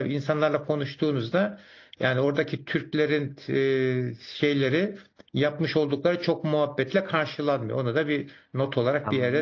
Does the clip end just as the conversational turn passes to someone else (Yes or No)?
Yes